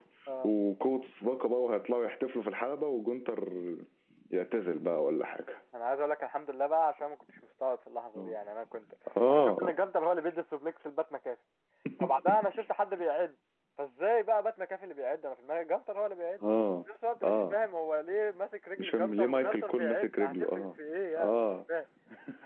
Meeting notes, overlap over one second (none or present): present